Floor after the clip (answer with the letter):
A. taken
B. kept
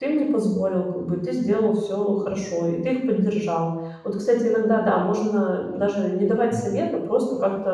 B